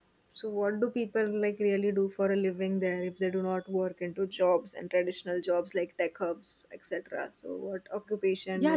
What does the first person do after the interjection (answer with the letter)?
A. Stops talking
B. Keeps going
A